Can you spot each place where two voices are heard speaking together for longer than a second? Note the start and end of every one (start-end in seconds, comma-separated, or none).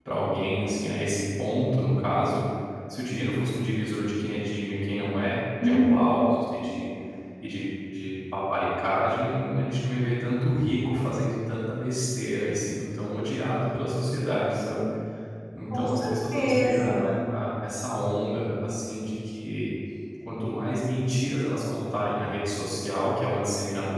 15.7-17.0